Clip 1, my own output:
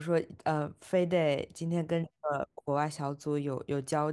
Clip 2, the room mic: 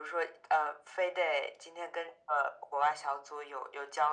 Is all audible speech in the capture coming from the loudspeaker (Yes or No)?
Yes